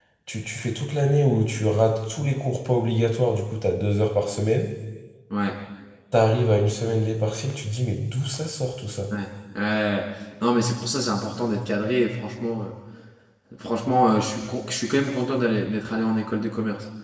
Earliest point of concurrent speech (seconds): none

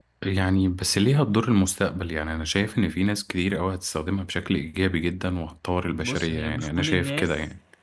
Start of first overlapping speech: 6.0 s

